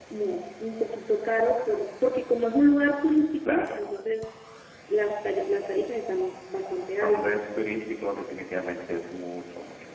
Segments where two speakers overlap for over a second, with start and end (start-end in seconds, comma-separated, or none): none